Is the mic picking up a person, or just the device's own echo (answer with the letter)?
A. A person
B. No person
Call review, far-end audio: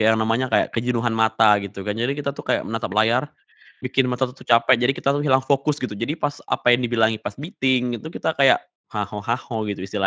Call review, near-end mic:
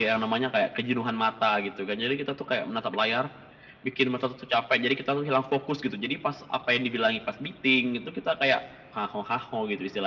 B